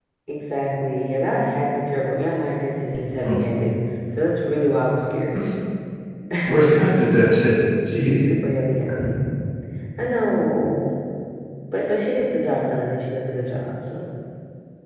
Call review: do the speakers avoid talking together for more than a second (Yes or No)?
Yes